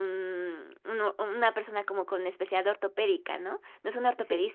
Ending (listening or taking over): listening